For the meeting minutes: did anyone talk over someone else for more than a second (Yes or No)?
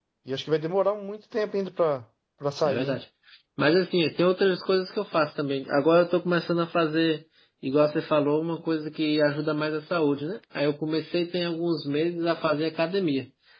No